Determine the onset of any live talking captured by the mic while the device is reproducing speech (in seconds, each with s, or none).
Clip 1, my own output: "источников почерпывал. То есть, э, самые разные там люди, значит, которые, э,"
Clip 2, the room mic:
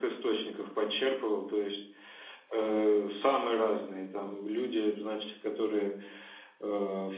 none